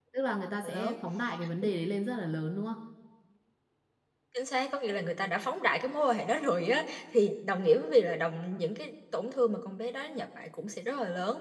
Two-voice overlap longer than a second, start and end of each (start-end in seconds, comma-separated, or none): none